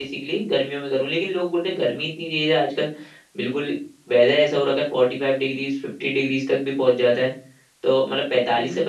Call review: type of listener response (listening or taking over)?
listening